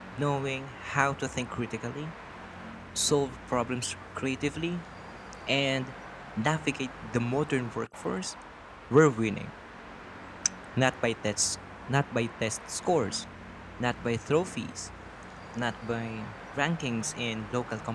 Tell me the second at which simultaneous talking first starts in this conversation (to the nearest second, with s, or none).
none